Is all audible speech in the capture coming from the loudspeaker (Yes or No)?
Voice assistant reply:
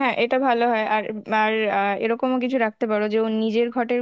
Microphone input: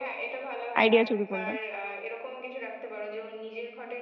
No